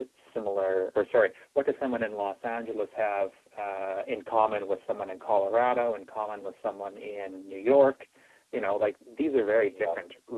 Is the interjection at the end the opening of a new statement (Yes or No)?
No